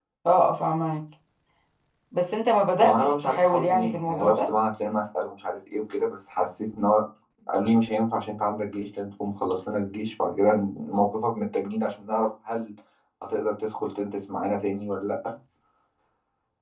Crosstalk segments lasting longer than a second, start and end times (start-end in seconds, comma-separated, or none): 2.8-4.5